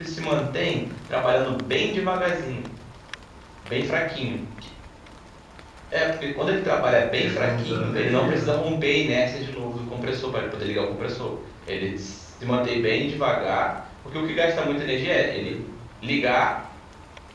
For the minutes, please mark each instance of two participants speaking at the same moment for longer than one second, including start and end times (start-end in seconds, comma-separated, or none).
6.8-8.5